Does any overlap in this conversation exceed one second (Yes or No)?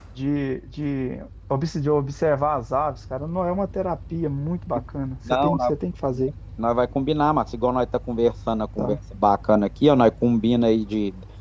No